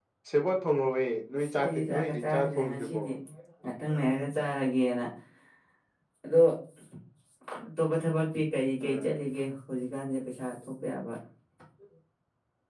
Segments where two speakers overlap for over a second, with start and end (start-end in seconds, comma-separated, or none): 1.4-3.0